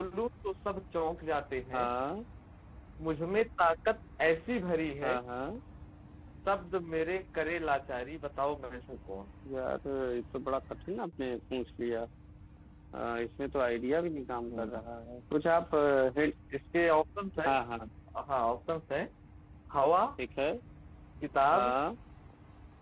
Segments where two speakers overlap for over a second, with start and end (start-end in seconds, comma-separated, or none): none